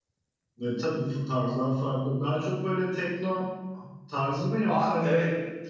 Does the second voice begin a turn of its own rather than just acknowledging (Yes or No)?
Yes